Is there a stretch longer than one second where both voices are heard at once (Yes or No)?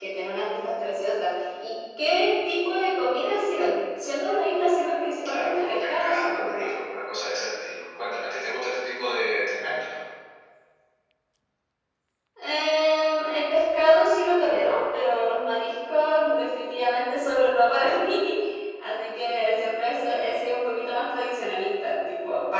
Yes